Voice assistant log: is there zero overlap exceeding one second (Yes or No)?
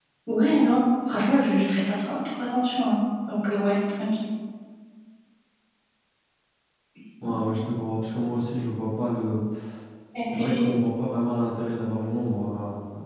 Yes